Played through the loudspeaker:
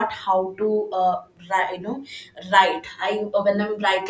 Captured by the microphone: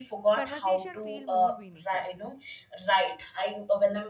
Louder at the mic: echo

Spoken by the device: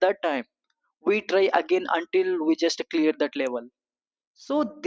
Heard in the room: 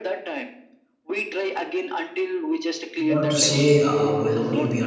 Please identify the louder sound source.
user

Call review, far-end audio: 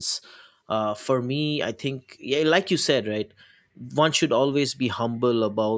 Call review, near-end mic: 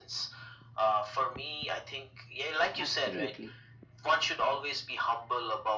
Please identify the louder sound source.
echo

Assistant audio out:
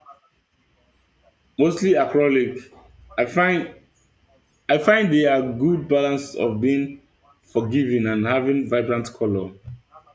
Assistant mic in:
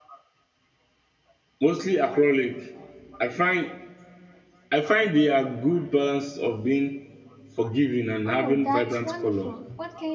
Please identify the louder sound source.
echo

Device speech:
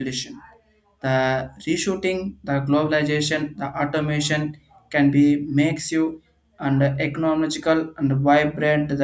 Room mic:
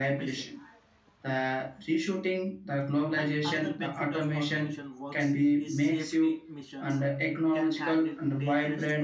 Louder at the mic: echo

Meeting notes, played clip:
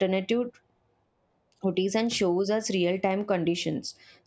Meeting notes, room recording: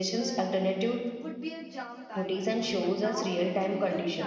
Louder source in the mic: echo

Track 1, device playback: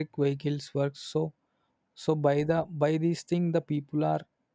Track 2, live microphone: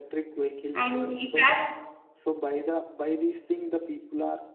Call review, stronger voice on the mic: user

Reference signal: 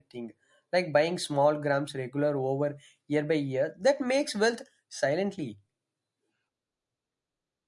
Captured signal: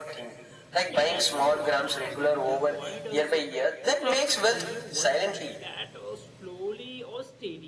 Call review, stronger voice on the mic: echo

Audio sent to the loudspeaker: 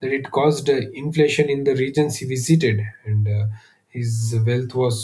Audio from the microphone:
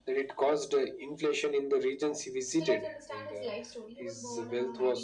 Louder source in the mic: echo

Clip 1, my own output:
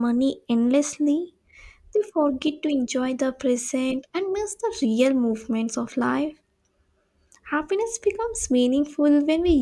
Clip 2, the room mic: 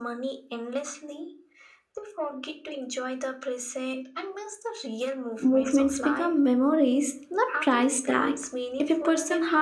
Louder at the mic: user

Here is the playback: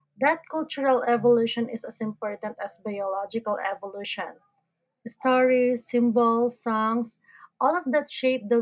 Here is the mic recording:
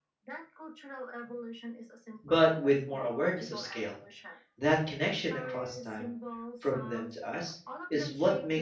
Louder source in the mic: user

